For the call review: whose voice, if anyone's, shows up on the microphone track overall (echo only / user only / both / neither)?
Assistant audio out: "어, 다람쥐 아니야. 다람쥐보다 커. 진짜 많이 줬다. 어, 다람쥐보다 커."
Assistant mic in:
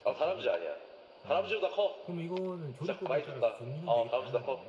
both